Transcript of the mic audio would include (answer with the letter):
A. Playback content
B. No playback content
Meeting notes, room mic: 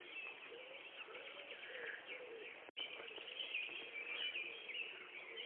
B